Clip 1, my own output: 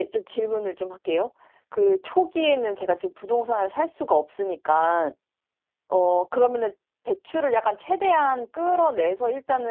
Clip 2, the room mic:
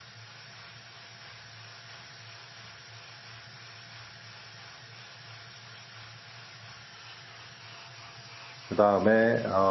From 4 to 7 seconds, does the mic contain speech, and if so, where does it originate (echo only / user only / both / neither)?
neither